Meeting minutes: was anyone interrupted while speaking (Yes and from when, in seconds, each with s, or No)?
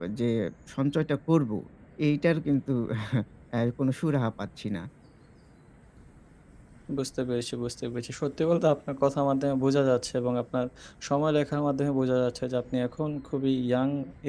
No